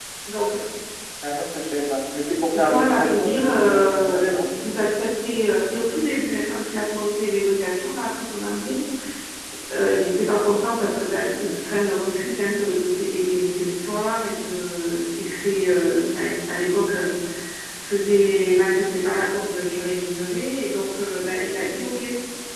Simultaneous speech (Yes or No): Yes